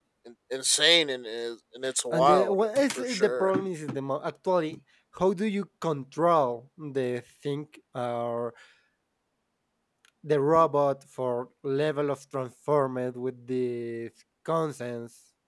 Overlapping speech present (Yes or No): Yes